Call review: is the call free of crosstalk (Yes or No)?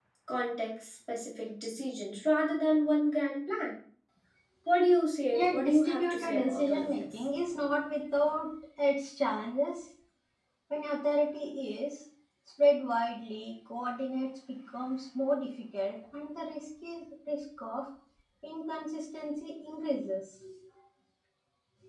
No